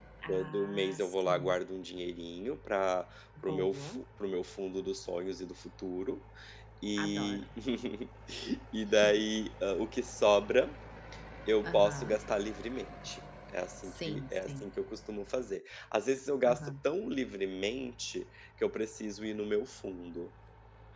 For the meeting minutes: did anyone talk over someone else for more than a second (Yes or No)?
Yes